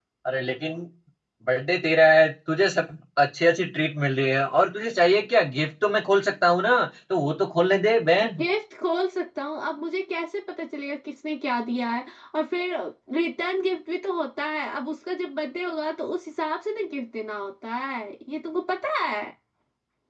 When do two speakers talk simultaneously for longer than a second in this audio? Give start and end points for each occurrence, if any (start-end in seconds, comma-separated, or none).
none